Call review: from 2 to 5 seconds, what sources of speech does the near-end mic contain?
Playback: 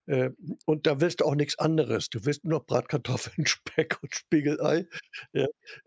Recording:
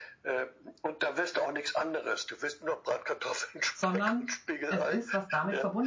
both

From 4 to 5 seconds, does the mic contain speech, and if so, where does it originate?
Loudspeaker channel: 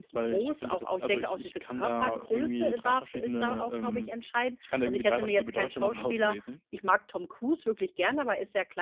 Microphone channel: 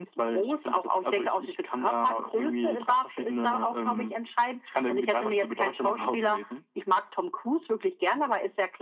echo only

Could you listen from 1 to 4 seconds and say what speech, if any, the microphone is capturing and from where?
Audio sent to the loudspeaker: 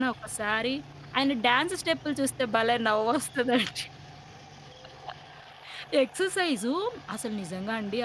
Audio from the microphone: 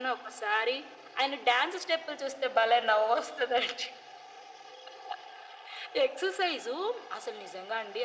echo only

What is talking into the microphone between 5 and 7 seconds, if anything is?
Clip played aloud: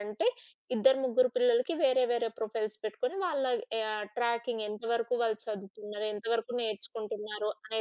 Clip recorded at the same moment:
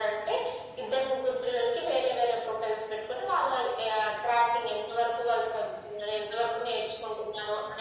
echo only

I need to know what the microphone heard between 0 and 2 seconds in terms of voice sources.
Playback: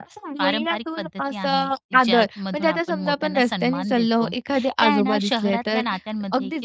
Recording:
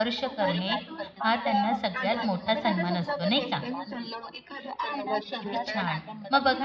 both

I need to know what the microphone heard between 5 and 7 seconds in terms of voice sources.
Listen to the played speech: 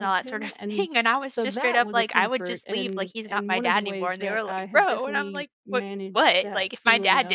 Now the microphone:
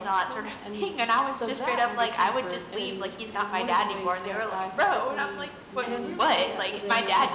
both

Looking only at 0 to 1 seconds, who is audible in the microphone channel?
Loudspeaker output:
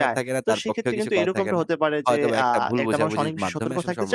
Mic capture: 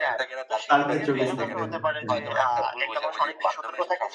both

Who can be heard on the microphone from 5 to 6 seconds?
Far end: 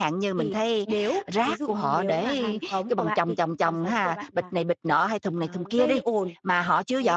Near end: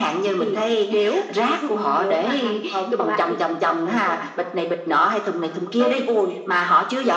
echo only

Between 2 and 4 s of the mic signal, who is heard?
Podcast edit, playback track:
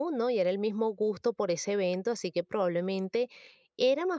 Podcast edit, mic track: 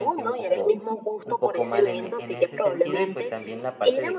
both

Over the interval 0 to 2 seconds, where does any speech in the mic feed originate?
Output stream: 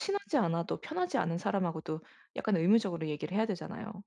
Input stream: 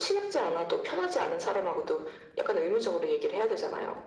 echo only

